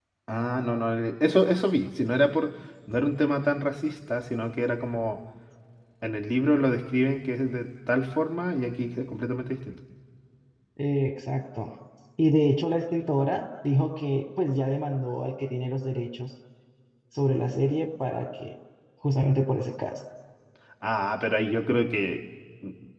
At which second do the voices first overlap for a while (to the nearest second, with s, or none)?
none